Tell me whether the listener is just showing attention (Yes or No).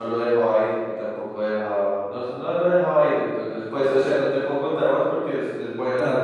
Yes